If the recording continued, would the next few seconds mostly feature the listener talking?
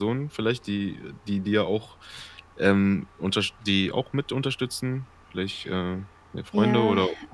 Yes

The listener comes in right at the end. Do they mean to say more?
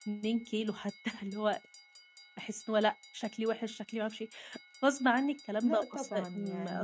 Yes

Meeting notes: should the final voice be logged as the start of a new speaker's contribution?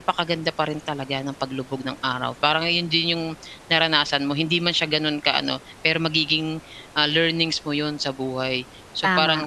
No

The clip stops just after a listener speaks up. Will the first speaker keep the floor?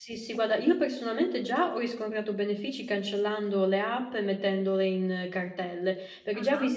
Yes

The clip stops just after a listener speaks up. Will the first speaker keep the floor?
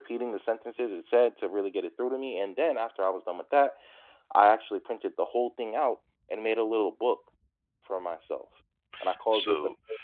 No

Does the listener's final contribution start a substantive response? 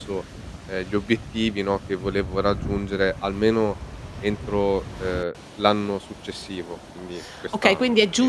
Yes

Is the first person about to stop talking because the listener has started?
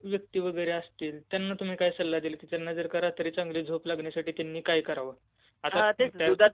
Yes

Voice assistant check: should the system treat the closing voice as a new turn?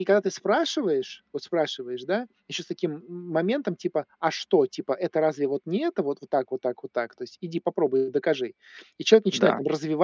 No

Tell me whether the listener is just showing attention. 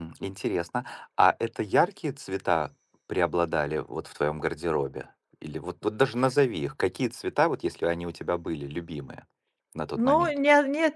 No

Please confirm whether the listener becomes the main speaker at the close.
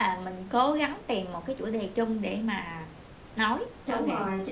Yes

